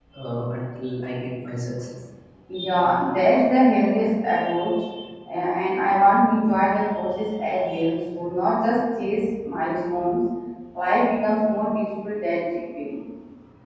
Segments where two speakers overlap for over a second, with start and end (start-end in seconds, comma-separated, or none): none